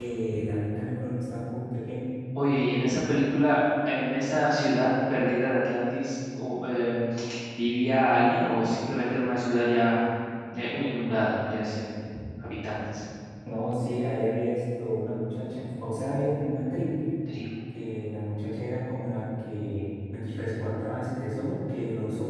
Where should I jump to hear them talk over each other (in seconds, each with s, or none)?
none